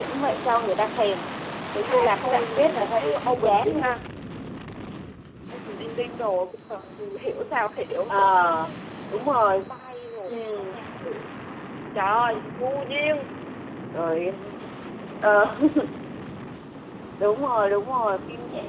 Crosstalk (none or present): present